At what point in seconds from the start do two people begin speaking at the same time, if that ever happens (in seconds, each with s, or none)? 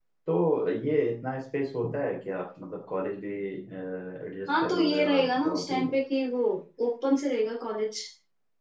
4.5 s